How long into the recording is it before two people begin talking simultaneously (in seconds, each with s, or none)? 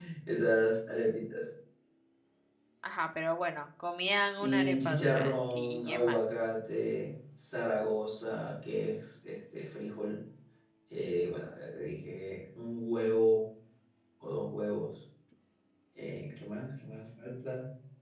4.4 s